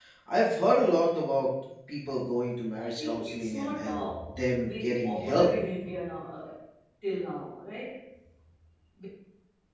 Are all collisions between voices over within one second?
No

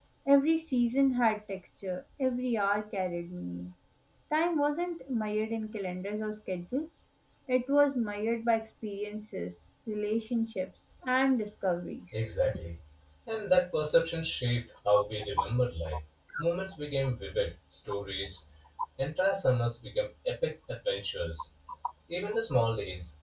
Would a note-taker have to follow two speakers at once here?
No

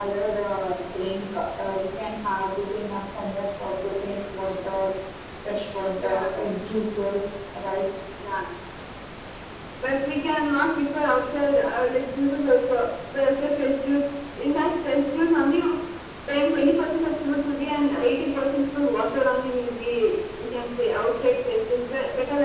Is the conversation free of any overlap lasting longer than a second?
Yes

